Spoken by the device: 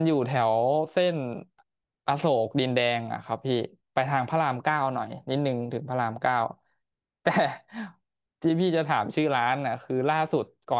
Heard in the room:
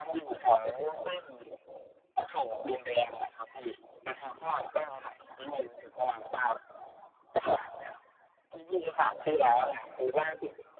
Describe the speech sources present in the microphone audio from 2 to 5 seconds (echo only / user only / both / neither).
echo only